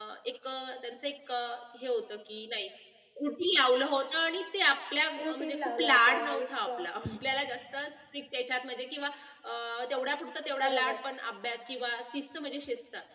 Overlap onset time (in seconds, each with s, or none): 5.2 s